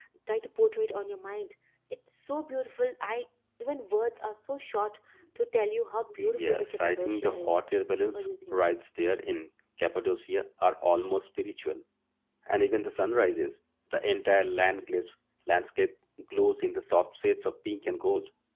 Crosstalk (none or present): present